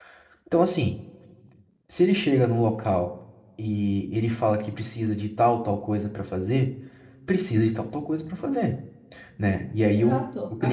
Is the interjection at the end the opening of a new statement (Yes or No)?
Yes